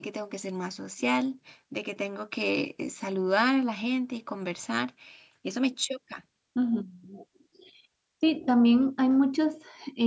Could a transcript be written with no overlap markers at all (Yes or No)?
Yes